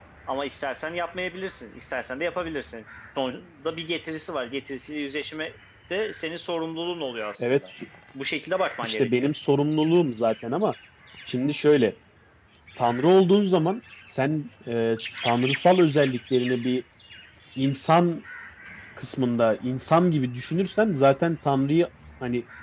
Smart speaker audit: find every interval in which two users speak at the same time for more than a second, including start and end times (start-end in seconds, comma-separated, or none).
none